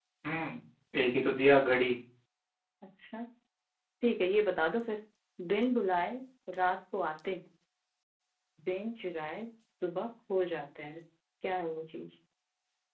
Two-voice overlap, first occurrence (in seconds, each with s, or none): none